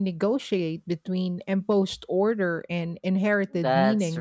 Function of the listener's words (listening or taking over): taking over